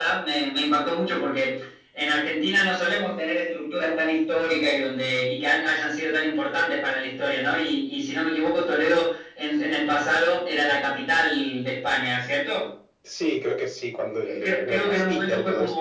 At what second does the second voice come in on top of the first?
14.2 s

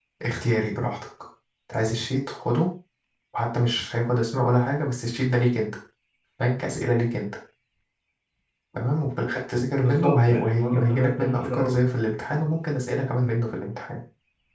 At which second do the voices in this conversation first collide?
9.8 s

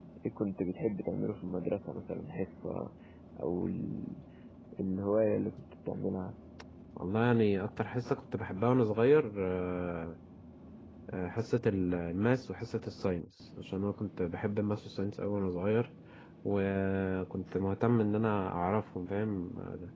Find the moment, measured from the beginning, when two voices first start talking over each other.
none

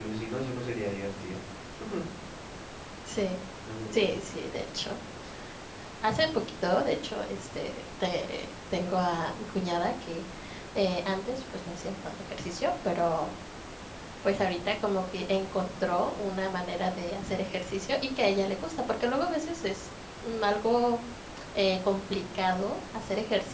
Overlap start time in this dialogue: none

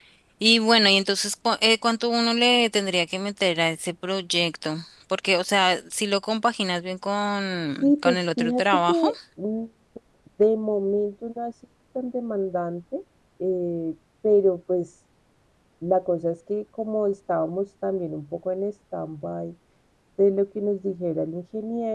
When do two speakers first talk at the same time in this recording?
7.8 s

